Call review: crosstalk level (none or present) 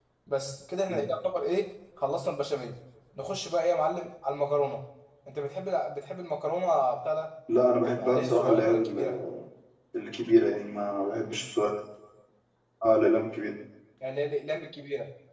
present